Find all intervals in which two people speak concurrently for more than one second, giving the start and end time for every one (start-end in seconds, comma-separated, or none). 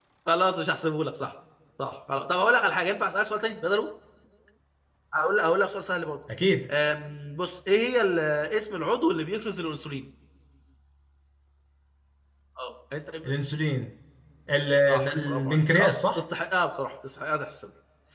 14.9-16.2